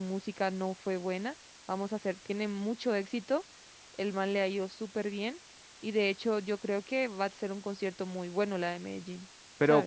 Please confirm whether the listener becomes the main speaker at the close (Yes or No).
Yes